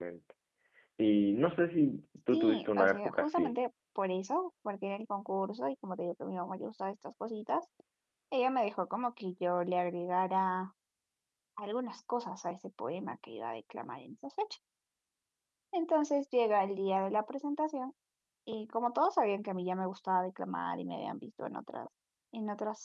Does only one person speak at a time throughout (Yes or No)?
No